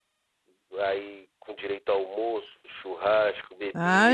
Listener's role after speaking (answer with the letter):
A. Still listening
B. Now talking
B